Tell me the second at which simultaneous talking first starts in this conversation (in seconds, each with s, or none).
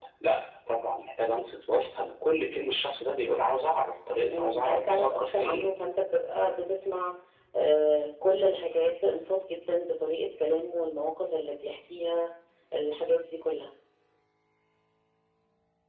4.3 s